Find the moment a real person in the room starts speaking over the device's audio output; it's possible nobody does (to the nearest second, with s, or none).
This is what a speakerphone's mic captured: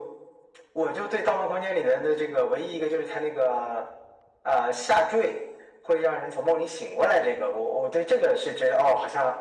none